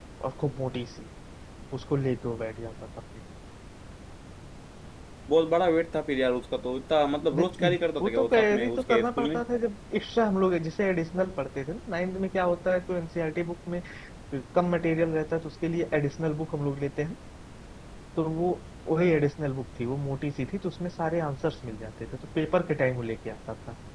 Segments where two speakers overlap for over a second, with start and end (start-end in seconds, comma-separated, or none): 7.3-9.4